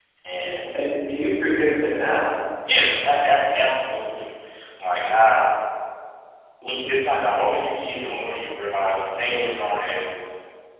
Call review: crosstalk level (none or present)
none